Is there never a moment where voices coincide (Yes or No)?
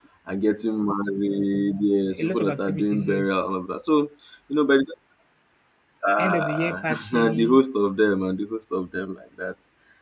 No